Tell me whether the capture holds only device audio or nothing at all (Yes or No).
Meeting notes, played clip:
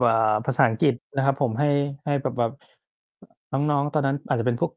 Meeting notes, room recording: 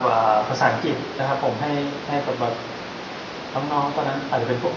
Yes